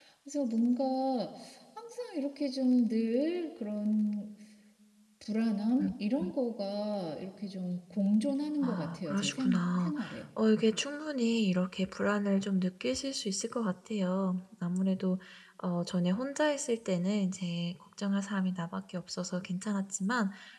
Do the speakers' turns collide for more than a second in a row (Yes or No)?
Yes